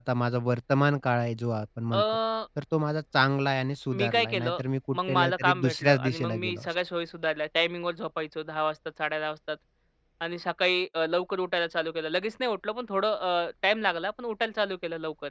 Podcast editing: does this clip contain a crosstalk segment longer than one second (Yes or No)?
Yes